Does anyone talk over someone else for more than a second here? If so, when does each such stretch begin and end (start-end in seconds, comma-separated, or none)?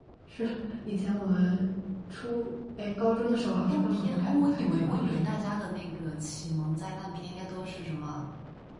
3.6-5.3